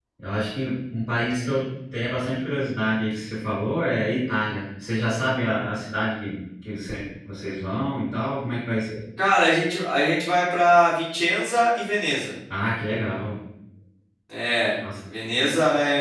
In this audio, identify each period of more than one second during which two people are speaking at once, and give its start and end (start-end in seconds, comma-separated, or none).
none